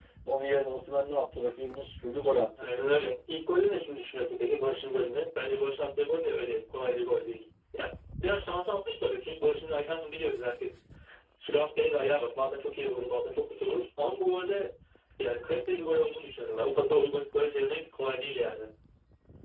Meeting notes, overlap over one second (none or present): none